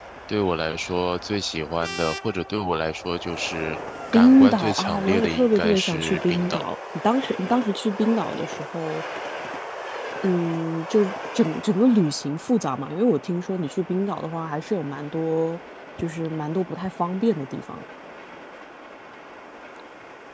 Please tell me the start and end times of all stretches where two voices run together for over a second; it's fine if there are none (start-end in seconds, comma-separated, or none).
4.1-6.6